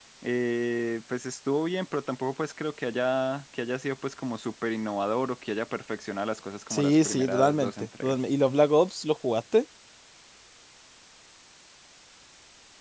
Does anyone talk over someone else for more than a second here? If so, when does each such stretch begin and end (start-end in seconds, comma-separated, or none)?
6.7-8.2